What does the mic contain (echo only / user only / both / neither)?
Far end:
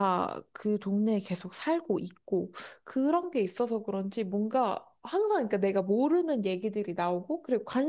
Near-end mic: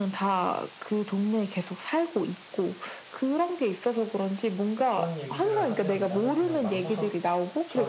both